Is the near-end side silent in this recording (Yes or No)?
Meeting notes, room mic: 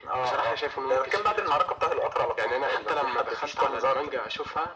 Yes